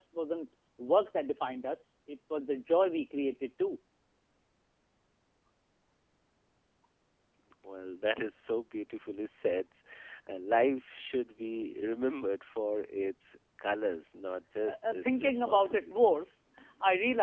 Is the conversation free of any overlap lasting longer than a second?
No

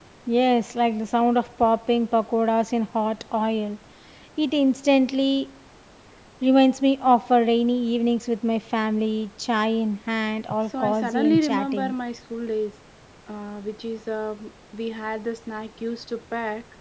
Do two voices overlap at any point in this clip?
Yes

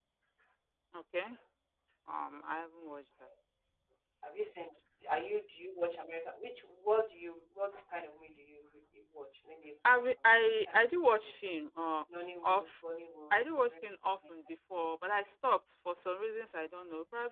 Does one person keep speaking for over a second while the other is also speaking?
Yes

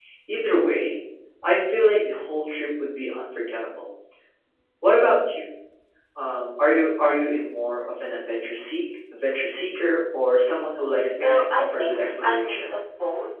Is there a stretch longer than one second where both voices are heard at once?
Yes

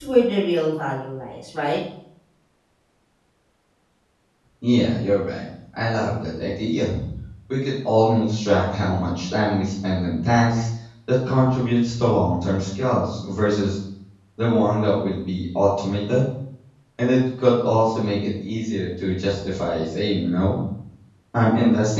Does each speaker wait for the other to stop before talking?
Yes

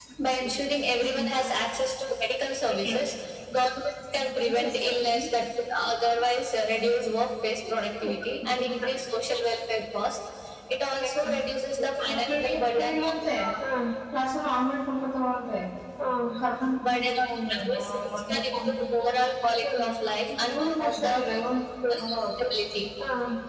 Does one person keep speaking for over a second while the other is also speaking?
Yes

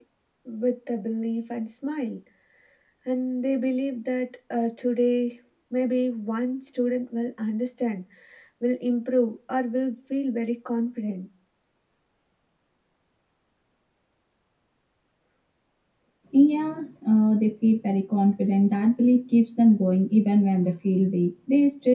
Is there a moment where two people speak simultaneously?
No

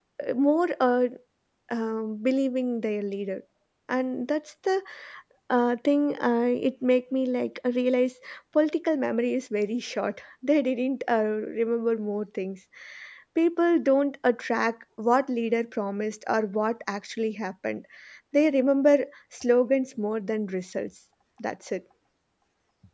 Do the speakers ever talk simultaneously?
No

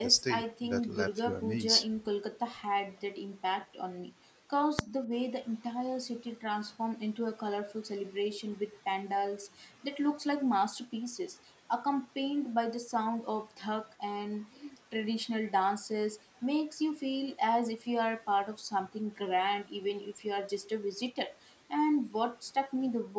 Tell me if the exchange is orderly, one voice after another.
No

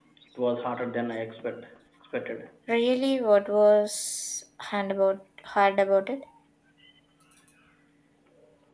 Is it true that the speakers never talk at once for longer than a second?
Yes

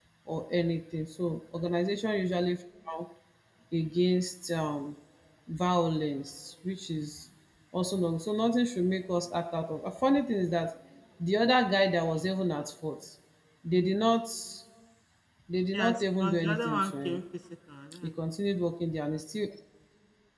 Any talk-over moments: Yes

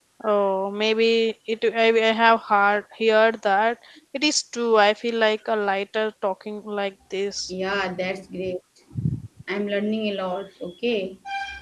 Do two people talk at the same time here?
No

